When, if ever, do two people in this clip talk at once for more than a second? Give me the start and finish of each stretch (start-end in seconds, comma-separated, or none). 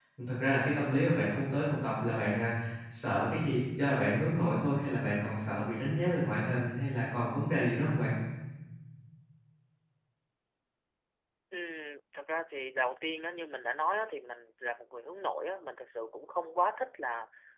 none